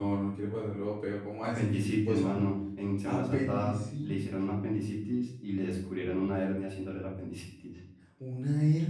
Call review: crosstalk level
present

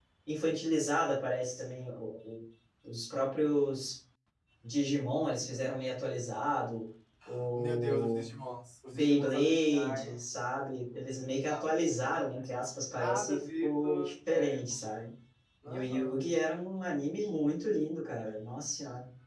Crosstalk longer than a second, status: present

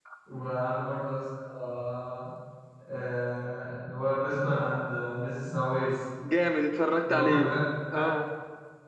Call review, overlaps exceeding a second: none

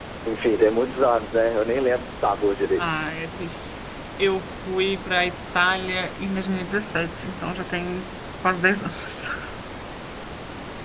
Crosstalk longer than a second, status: none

